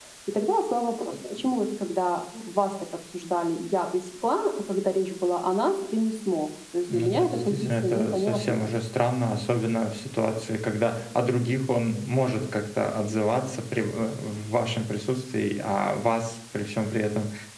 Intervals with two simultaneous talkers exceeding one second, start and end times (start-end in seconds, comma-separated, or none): 6.9-8.7